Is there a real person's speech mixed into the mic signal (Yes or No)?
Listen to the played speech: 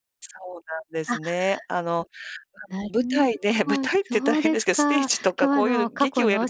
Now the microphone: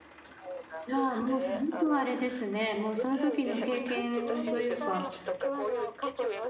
Yes